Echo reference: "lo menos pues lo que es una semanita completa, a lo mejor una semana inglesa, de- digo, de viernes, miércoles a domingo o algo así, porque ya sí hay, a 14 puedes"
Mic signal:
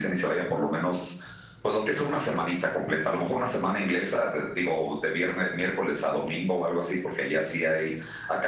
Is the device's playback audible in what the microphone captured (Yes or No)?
Yes